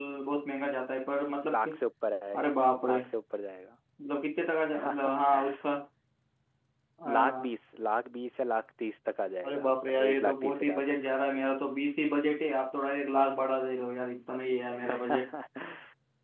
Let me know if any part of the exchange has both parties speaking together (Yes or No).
Yes